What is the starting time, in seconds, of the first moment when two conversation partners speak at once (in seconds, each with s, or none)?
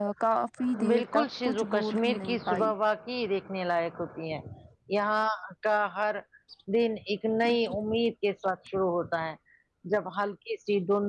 0.9 s